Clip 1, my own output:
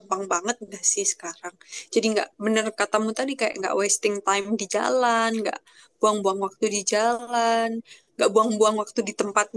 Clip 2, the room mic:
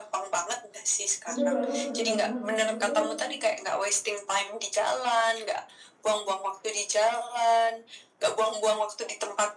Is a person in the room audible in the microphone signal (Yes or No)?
Yes